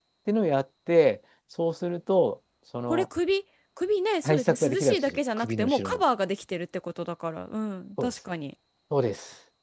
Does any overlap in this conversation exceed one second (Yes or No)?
Yes